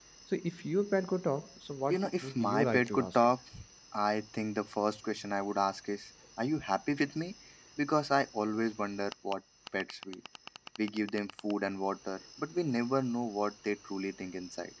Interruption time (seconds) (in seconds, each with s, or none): 1.9 s